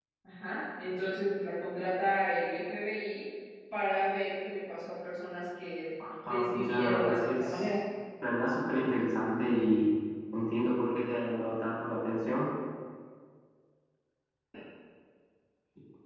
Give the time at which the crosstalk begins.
6.3 s

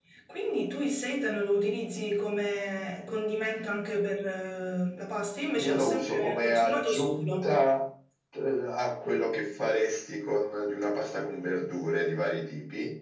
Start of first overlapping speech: 5.5 s

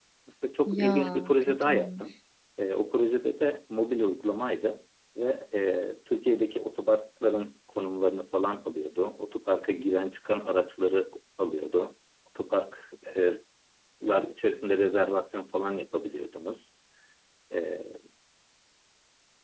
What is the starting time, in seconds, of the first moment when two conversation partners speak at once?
0.7 s

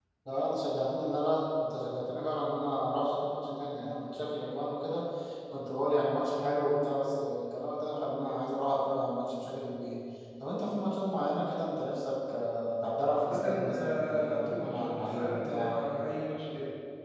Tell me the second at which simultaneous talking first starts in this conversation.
13.3 s

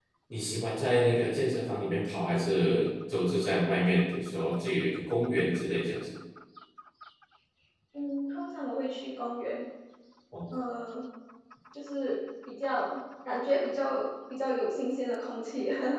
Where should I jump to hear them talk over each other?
none

